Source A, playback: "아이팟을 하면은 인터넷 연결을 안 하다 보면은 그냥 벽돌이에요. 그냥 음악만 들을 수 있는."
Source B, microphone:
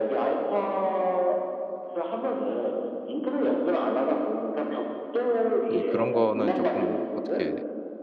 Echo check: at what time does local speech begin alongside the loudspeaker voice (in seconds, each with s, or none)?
5.7 s